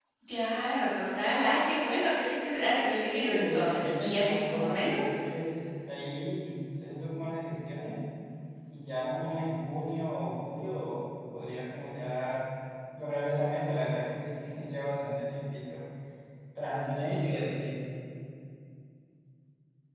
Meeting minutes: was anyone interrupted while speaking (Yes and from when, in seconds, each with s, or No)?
Yes, from 3.0 s